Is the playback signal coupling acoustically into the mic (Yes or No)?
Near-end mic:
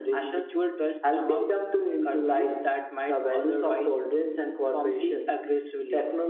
Yes